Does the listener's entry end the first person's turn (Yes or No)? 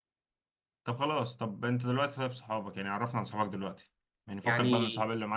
No